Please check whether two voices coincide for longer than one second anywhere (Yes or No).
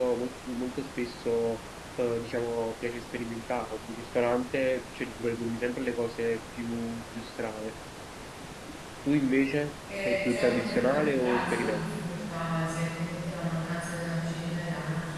Yes